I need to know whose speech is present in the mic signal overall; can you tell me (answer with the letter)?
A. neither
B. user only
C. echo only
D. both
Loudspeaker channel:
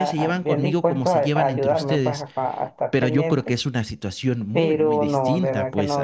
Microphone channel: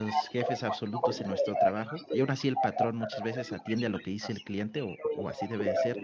D